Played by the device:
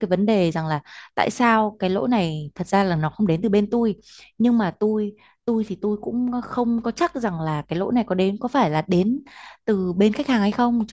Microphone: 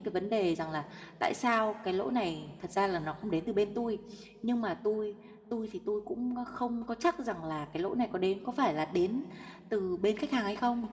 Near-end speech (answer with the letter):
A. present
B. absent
B